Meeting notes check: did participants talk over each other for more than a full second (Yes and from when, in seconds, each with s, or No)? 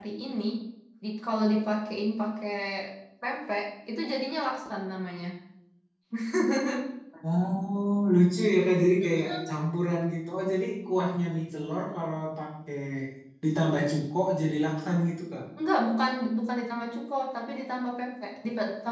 No